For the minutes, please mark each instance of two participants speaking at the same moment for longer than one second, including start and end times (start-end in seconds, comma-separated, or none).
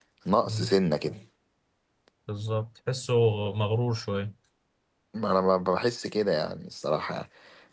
none